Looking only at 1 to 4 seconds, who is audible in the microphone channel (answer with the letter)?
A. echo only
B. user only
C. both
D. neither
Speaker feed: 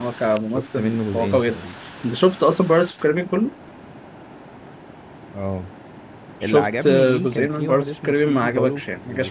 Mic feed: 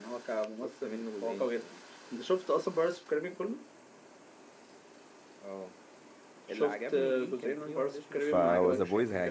A